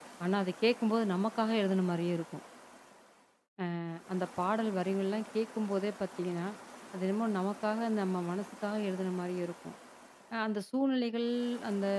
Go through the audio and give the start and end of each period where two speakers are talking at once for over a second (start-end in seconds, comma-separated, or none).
none